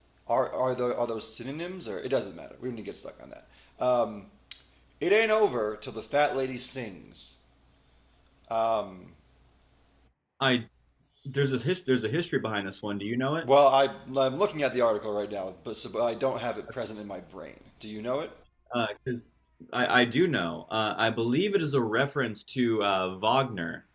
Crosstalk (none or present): none